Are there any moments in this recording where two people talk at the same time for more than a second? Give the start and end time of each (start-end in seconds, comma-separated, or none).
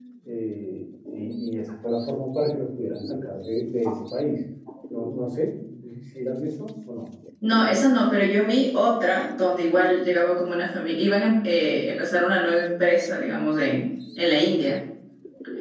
none